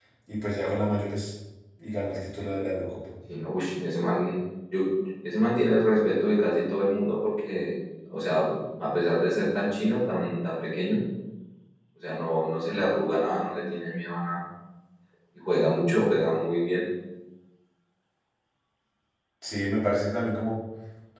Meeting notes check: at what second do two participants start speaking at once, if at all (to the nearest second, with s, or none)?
none